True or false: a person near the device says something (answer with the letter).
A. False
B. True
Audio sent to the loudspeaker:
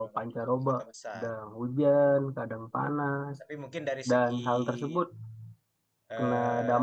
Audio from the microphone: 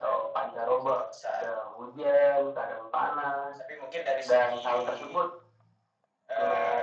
A